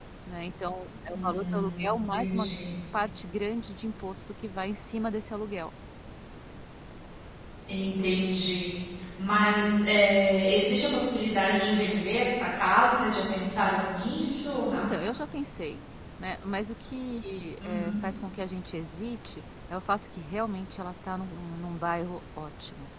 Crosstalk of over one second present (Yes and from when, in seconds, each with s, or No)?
Yes, from 1.1 s